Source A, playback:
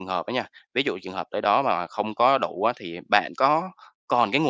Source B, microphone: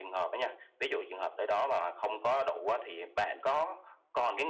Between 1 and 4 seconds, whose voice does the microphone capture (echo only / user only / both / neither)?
echo only